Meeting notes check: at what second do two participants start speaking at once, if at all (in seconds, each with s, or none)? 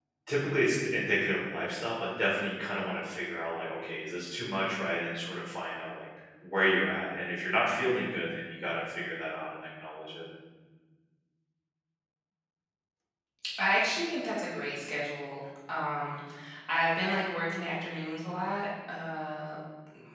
none